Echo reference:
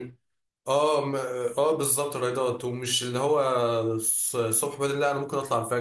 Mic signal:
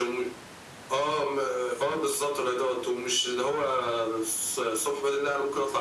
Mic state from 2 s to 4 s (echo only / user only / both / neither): echo only